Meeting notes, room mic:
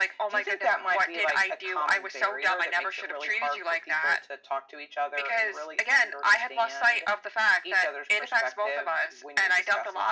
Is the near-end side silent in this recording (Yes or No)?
Yes